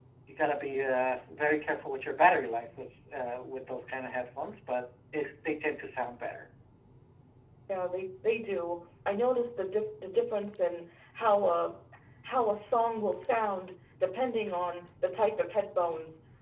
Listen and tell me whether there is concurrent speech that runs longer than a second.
No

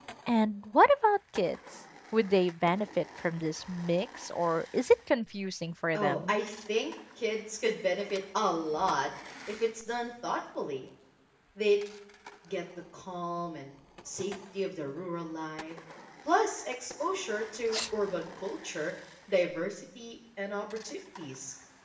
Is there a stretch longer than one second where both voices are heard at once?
No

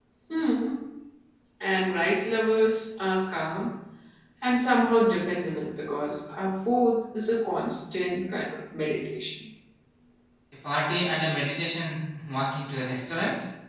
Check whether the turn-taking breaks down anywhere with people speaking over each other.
No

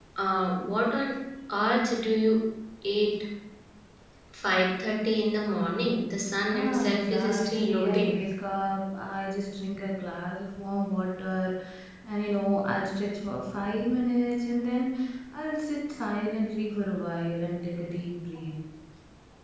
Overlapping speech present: Yes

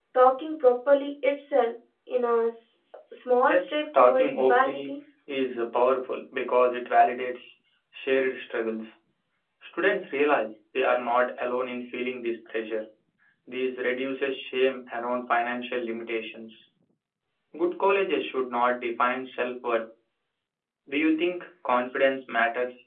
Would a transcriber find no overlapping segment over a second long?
No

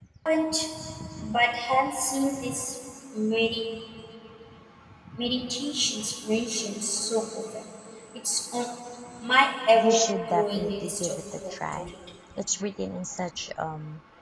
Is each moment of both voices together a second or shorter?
No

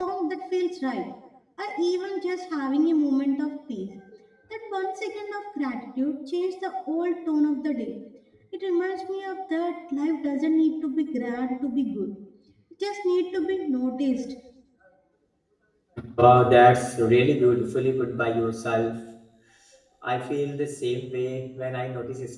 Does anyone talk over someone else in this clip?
No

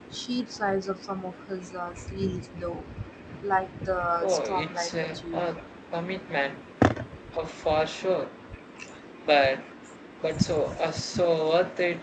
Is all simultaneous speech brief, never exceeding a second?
No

